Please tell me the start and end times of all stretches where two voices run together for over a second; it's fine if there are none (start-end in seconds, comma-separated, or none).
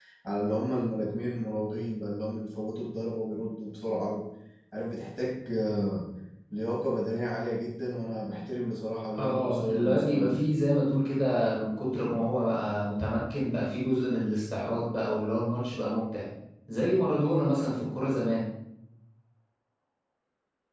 9.2-10.4